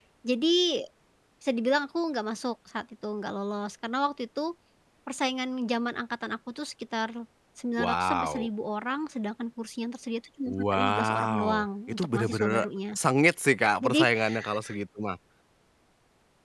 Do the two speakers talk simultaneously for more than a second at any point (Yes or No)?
Yes